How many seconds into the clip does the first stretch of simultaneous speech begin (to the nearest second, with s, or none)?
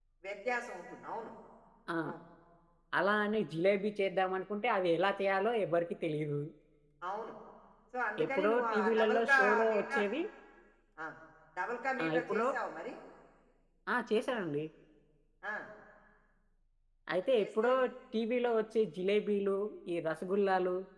8 s